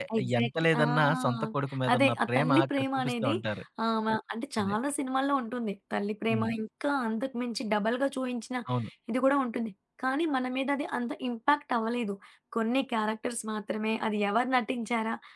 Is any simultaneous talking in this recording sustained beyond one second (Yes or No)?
Yes